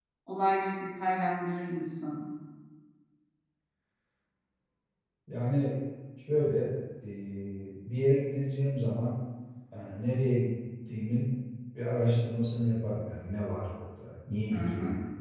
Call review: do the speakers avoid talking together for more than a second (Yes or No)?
Yes